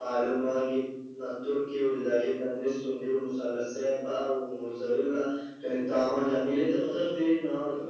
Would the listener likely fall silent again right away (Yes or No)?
No